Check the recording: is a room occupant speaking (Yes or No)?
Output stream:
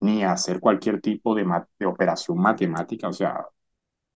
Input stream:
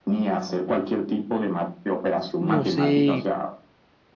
Yes